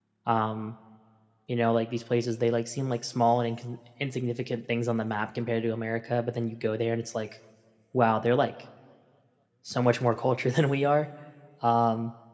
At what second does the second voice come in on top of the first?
none

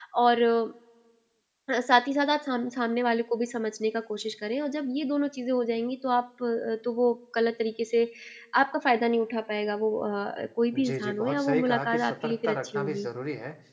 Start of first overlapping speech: 10.7 s

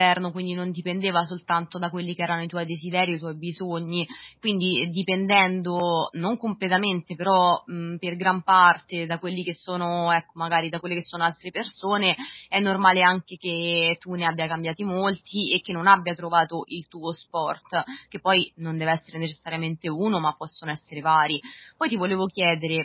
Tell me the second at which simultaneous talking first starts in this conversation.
none

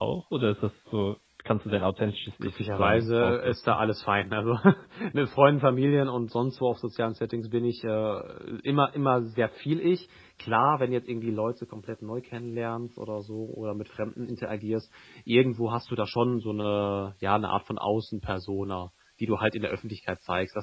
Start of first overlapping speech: 2.4 s

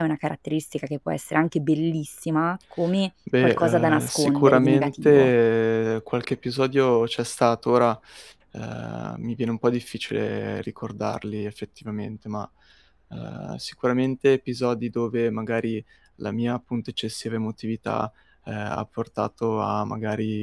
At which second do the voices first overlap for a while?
3.3 s

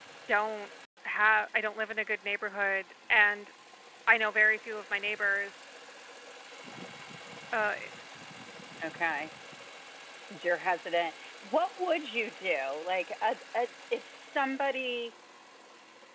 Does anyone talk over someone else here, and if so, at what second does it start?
none

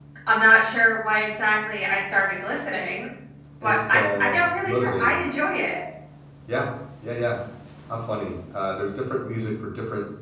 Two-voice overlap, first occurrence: 3.6 s

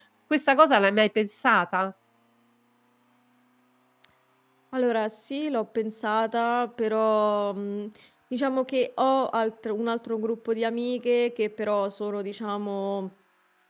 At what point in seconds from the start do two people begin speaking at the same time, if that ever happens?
none

